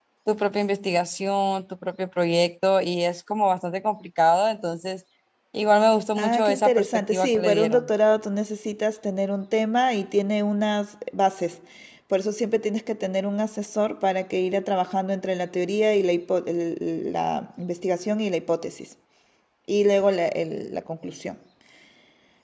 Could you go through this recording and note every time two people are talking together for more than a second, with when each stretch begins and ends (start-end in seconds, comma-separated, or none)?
6.2-7.9